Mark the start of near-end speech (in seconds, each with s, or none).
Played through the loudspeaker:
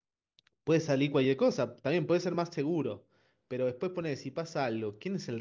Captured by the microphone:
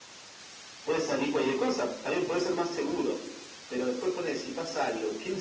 none